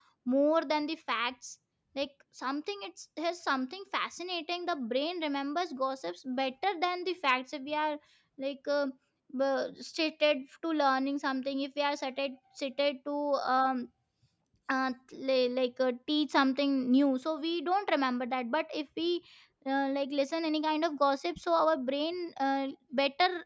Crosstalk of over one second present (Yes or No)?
No